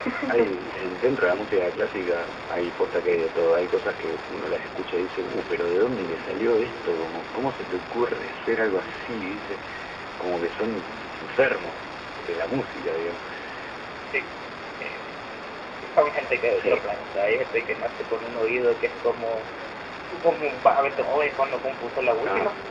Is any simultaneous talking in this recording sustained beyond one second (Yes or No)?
No